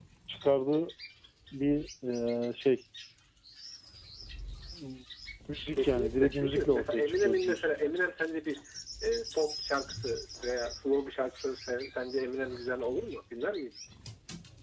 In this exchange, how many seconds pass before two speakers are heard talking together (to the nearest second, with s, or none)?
6 s